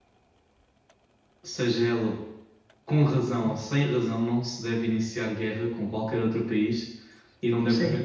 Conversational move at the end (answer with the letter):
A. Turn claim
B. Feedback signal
B